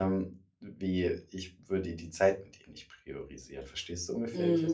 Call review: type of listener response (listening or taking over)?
taking over